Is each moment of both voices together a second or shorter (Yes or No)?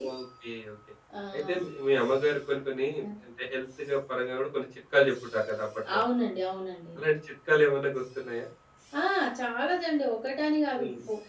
Yes